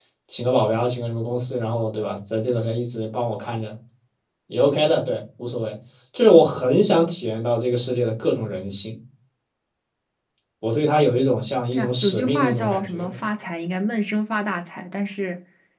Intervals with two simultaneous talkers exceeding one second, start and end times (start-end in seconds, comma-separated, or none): 11.7-13.2